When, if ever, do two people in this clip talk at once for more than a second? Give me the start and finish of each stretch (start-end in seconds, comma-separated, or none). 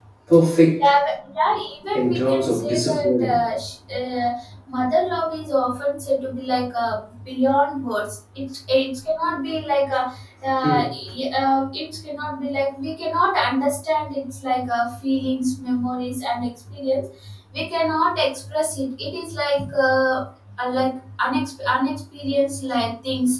1.9-3.4